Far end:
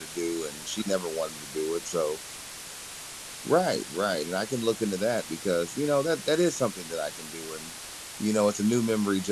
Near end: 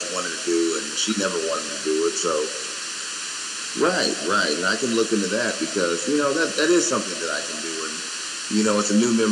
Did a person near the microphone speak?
No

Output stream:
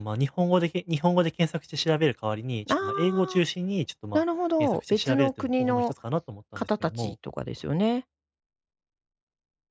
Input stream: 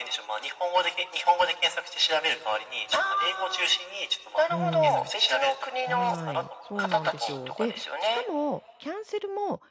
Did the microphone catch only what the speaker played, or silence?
No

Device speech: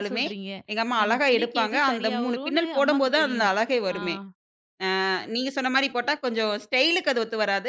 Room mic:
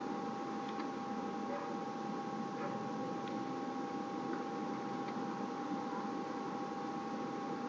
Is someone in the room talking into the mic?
No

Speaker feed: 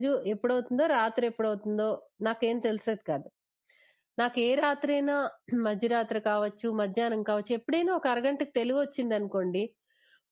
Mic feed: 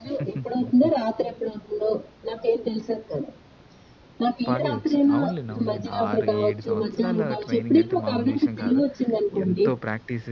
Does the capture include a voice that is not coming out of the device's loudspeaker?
Yes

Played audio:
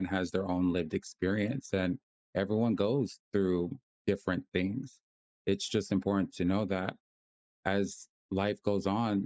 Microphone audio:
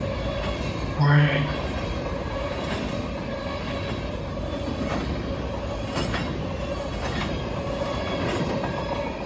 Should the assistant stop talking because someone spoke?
Yes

